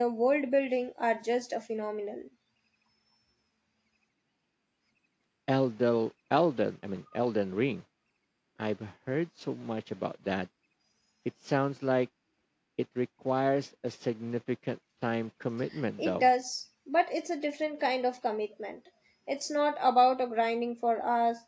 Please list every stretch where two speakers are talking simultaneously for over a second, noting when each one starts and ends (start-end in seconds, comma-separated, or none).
none